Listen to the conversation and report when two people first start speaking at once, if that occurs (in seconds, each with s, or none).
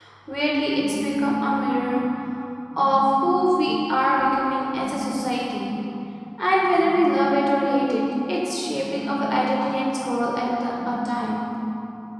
none